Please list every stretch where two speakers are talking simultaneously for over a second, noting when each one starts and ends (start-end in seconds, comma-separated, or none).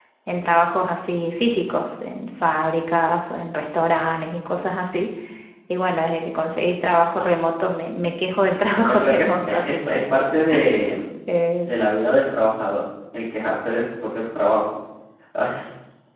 8.8-10.0